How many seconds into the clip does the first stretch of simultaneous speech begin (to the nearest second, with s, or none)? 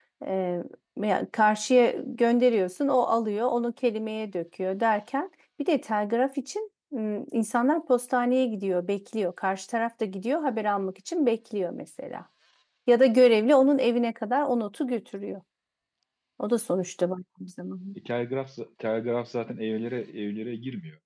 none